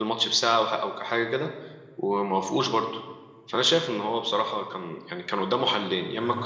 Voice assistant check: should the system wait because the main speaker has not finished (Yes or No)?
Yes